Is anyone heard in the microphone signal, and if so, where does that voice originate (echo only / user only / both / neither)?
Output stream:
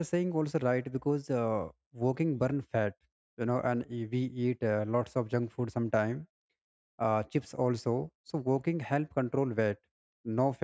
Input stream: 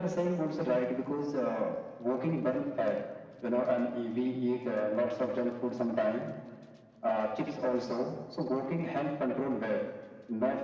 echo only